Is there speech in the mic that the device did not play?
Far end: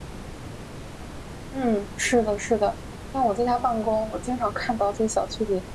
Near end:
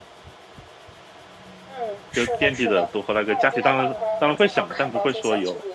Yes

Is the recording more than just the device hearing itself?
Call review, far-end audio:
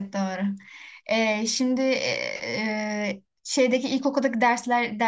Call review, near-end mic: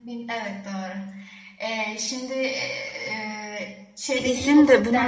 Yes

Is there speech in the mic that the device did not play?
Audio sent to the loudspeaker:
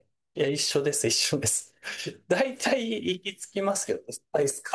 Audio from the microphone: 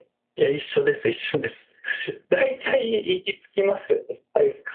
No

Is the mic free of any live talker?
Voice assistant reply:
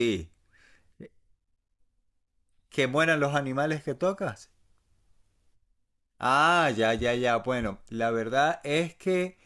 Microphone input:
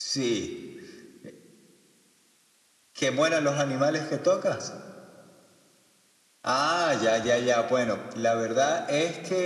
Yes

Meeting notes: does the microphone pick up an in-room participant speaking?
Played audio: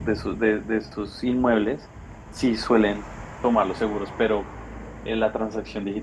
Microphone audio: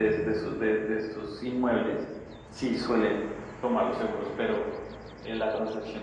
No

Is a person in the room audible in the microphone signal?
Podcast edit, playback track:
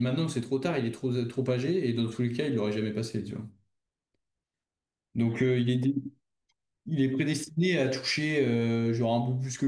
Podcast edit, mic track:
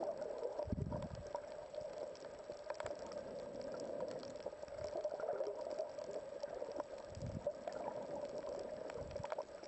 No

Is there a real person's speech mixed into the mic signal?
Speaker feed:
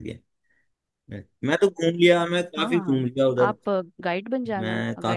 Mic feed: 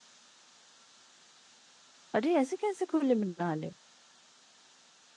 Yes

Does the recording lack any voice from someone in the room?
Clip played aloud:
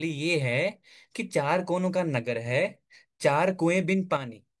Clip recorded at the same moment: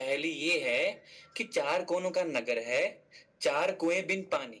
Yes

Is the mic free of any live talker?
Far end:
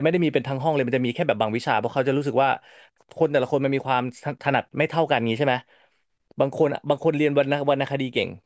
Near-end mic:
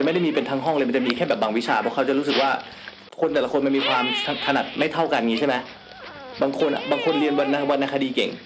Yes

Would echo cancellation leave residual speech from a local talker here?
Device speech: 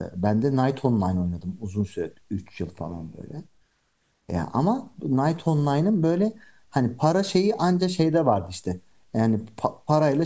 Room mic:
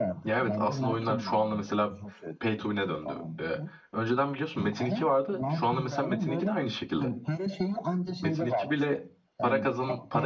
Yes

